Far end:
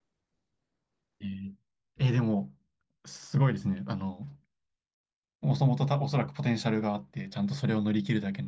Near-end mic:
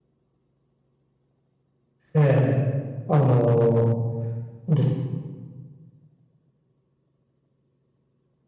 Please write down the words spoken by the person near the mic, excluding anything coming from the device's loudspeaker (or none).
ええあの、で、